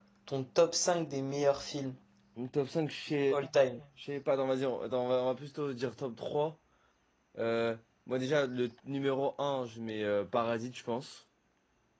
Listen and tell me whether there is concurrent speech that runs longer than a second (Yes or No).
No